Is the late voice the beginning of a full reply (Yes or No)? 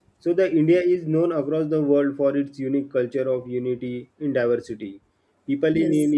No